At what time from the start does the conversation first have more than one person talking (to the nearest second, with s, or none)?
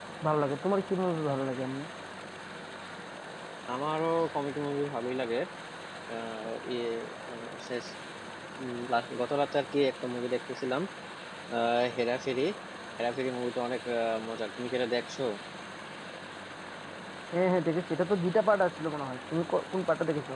none